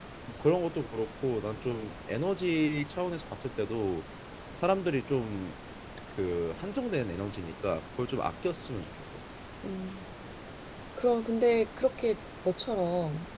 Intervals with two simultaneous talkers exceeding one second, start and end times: none

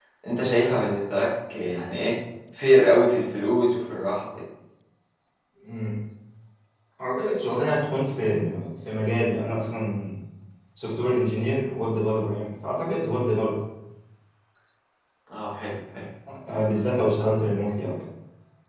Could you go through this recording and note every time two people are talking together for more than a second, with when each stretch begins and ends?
none

